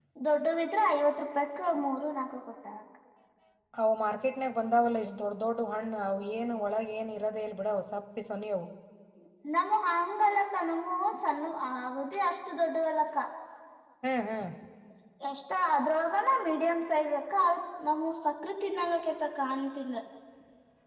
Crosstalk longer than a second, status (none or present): none